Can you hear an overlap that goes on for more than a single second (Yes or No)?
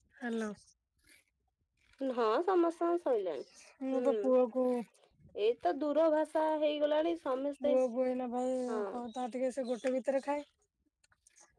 No